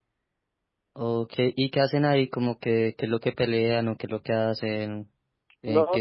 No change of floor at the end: No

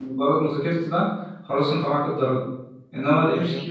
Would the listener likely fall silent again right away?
Yes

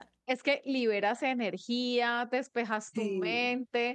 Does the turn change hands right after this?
No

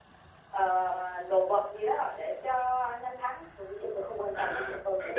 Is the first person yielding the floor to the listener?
Yes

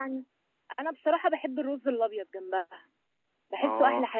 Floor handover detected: Yes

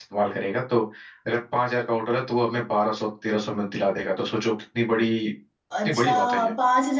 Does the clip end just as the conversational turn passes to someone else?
Yes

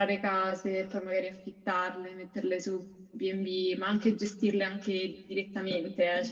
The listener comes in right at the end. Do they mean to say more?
Yes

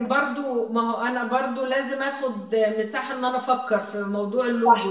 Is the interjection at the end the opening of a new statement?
Yes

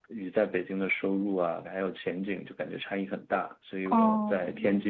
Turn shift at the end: No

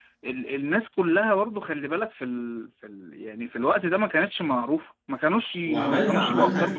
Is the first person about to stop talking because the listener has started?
Yes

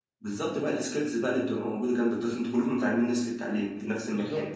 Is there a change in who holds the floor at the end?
No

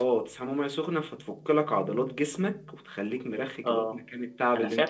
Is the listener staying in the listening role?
No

